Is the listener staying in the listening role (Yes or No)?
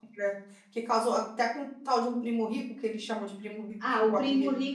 No